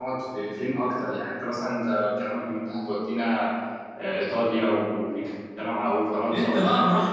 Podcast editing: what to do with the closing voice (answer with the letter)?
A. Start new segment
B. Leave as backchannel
A